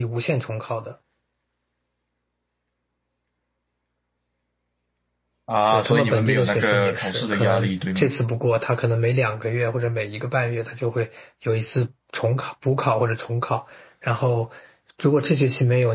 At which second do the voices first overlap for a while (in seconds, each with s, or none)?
5.7 s